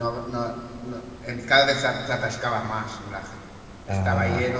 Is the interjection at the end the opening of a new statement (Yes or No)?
No